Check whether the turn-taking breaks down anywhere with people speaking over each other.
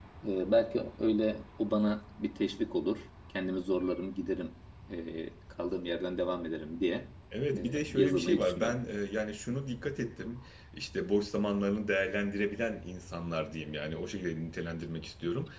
Yes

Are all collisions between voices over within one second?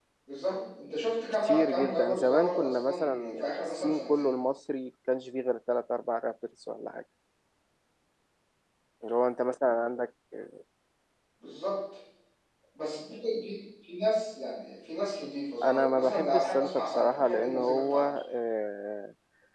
No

